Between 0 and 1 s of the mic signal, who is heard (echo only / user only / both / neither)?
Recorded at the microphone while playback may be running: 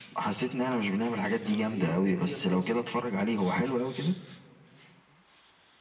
echo only